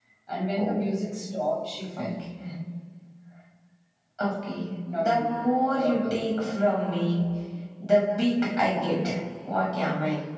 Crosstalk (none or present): present